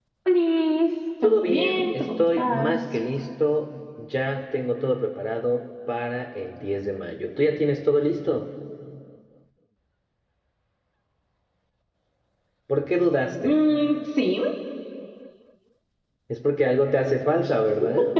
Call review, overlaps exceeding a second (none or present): present